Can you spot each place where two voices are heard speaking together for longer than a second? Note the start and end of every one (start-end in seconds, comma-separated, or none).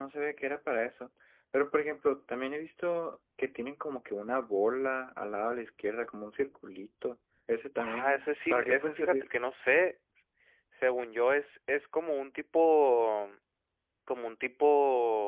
7.8-9.3